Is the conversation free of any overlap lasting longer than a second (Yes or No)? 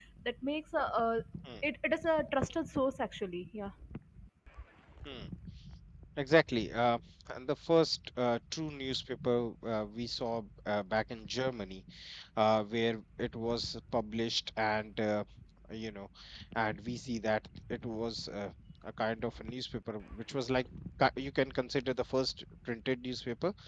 Yes